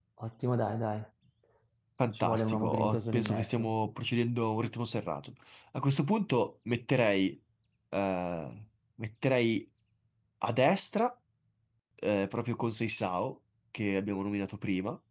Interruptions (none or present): present